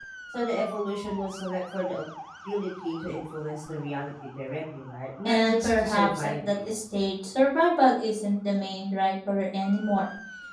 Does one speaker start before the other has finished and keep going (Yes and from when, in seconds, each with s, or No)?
Yes, from 5.2 s